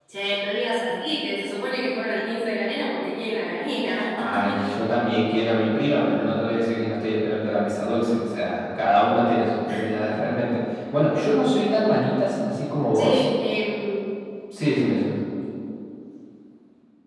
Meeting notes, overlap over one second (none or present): none